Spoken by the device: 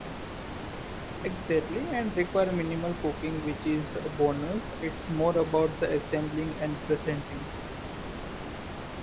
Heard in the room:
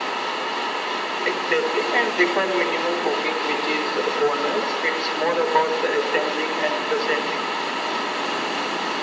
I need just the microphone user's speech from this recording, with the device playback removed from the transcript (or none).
none